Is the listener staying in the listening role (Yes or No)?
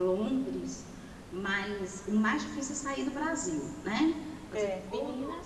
No